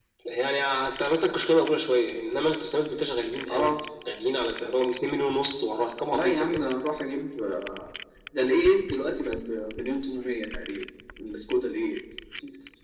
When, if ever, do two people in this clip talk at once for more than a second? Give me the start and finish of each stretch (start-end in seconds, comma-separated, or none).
none